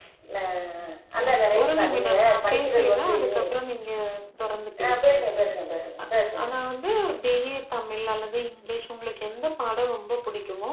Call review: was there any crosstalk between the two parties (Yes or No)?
Yes